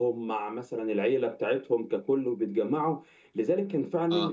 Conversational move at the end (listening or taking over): listening